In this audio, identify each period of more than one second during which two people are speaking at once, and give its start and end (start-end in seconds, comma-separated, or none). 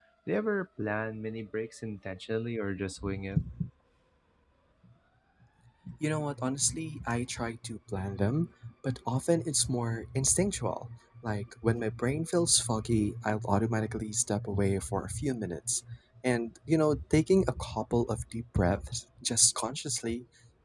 none